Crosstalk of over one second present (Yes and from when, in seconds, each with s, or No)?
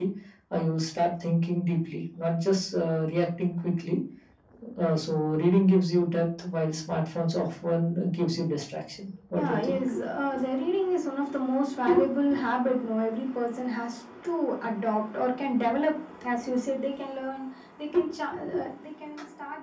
No